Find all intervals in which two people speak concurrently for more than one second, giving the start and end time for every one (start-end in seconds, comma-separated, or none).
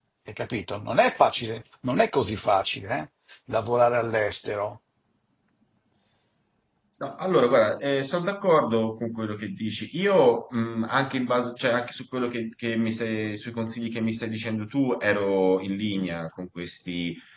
none